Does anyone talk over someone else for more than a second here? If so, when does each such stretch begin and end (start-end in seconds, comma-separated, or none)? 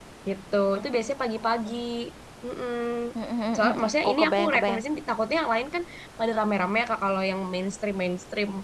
3.6-4.8